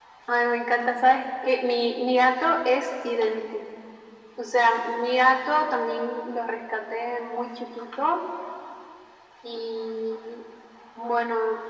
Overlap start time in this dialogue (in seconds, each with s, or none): none